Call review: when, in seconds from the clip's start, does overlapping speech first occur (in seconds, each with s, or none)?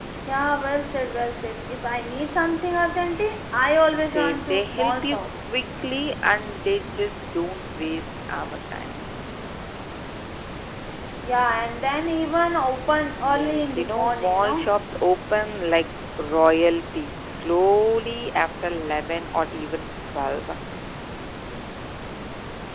4.0 s